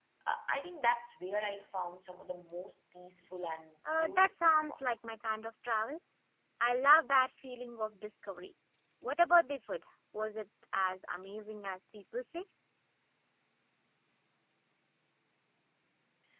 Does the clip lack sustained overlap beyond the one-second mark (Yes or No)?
No